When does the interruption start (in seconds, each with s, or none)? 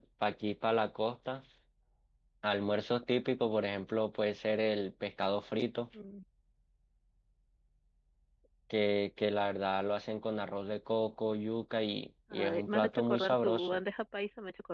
12.3 s